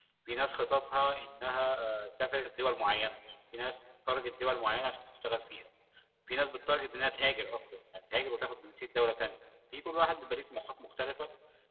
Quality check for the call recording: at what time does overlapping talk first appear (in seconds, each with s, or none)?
none